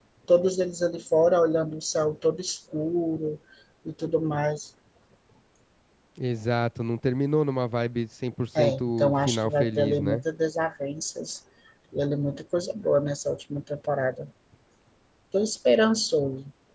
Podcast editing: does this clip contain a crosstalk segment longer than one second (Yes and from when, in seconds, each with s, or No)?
Yes, from 8.6 s